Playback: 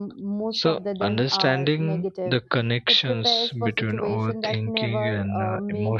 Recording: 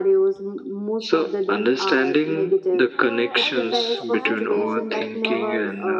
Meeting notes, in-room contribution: present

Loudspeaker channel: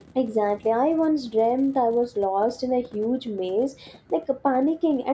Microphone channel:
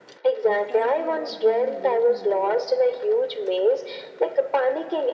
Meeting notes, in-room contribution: present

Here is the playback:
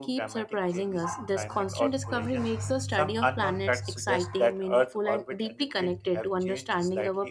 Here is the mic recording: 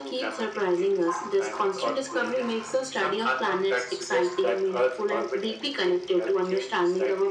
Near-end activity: none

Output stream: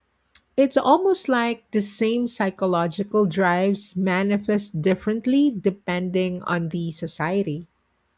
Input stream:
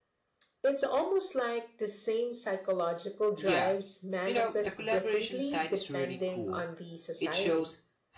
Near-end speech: present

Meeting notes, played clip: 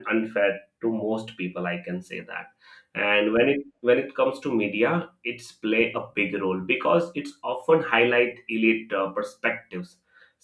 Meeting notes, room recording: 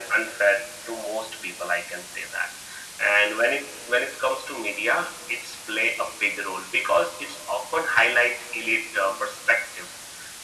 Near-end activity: none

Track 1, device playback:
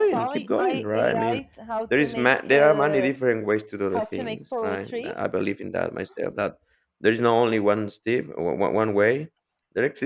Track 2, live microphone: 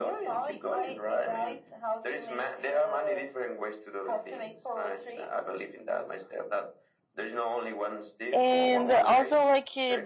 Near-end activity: present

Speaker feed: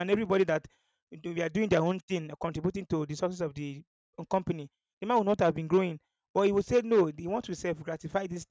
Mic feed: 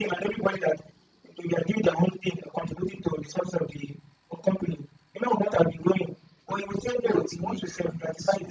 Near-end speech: present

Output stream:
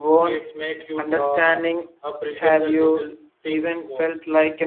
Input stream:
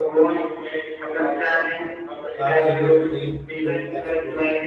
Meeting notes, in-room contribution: present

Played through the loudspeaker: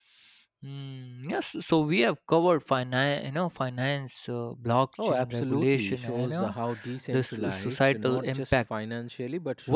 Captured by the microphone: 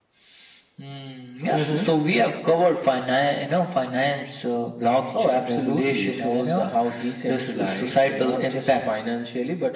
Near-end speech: present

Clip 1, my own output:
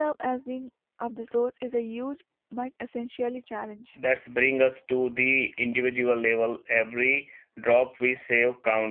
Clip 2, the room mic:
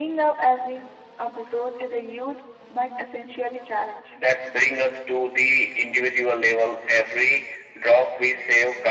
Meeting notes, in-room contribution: none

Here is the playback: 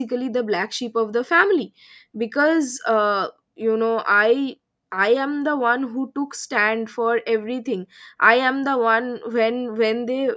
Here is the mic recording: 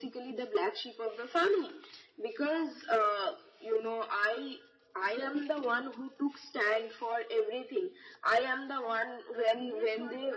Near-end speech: present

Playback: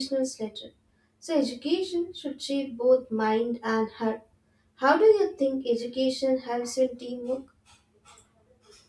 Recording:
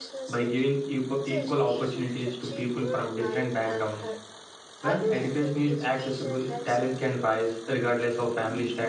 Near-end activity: present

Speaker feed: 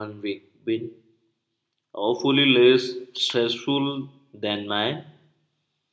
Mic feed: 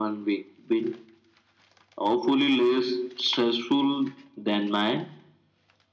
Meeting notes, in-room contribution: none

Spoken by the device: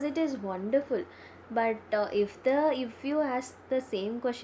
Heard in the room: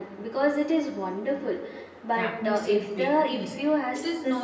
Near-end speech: present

